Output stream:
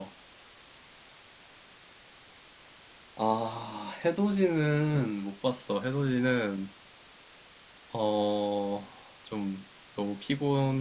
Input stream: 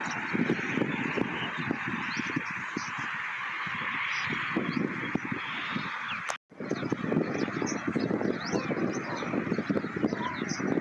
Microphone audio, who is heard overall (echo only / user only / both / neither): neither